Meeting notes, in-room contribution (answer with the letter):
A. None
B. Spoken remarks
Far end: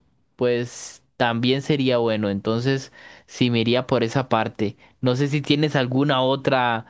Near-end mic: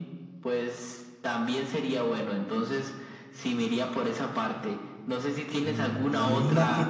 B